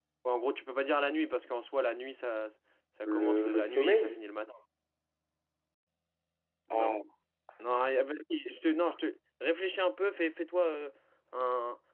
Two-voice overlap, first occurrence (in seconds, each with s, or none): 3.0 s